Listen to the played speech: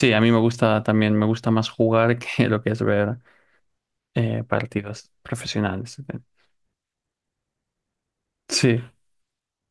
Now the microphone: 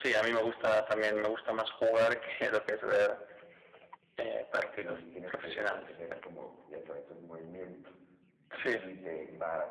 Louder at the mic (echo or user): echo